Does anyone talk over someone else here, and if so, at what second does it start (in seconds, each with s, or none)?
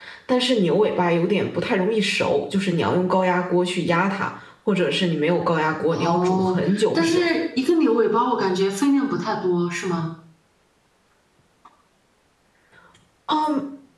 5.9 s